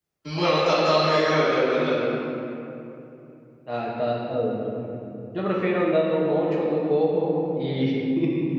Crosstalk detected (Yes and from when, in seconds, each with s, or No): No